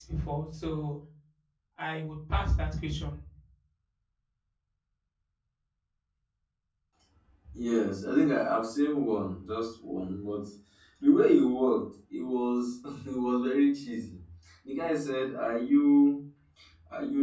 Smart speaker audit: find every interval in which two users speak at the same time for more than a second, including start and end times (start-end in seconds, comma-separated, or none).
none